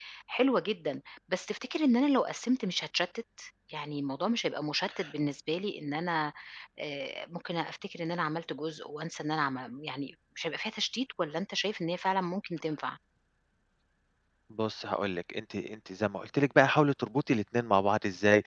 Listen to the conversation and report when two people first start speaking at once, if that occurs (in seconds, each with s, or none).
none